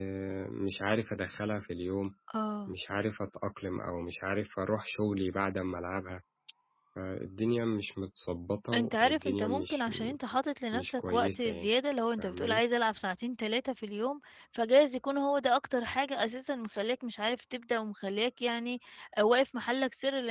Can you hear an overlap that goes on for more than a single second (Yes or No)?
Yes